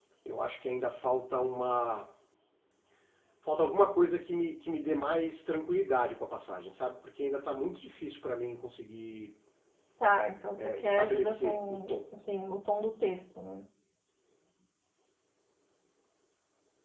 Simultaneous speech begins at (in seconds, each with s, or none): 10.6 s